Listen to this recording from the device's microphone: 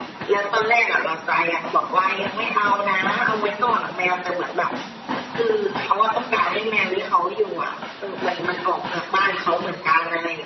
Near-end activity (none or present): none